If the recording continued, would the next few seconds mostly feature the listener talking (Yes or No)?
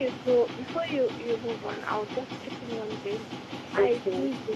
No